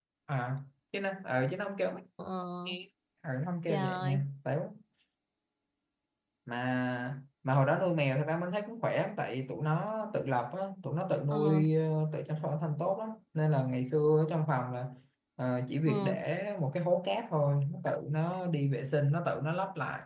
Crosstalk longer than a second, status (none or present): none